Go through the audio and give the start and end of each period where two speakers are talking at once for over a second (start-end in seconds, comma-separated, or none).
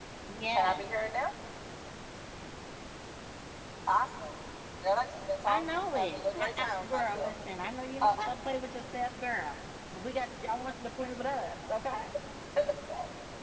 5.5-7.3